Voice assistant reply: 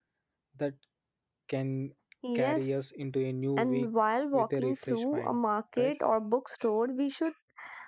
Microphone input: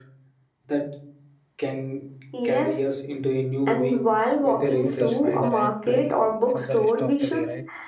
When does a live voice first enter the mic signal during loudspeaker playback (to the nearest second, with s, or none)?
5 s